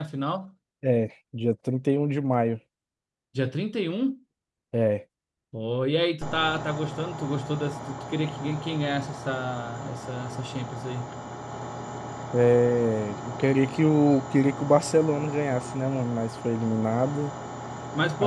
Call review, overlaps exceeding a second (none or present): none